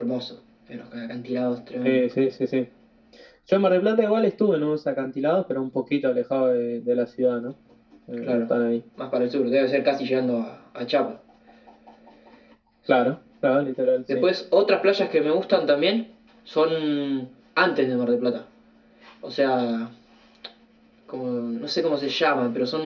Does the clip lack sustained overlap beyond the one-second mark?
Yes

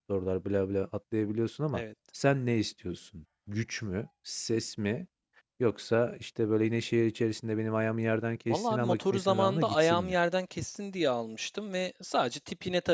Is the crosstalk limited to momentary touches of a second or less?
No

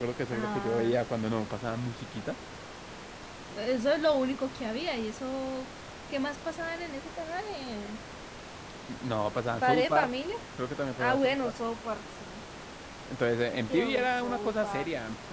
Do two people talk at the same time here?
Yes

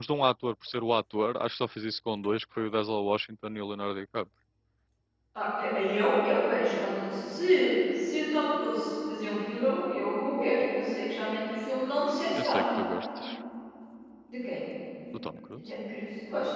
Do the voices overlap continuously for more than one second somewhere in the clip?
No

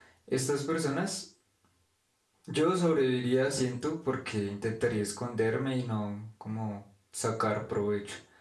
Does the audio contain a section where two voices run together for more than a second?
No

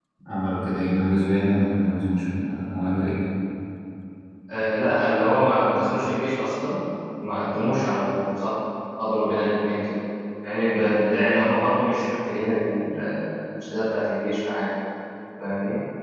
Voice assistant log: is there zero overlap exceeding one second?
Yes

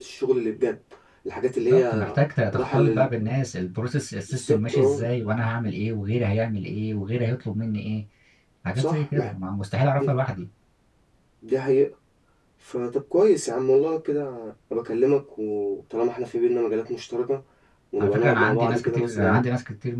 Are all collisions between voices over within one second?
No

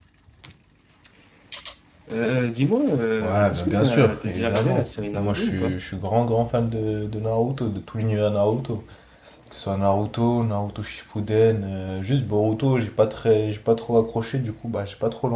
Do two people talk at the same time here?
Yes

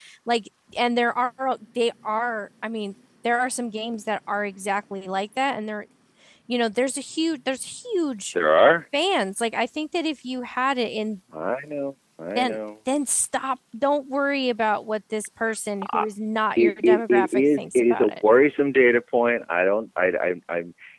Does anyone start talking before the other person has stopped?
Yes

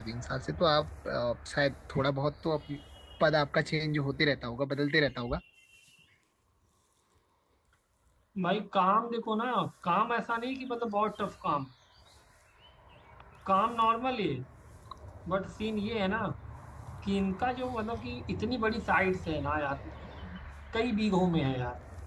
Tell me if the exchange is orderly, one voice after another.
Yes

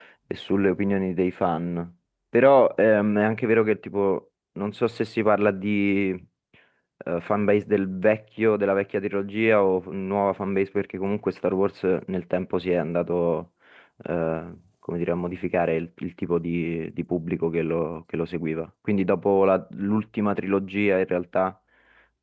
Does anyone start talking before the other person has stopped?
No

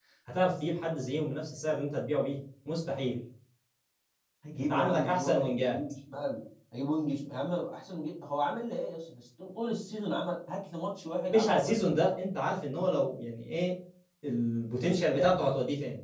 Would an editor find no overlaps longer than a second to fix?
No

